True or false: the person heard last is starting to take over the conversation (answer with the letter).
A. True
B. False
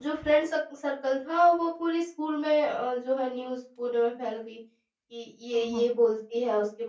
B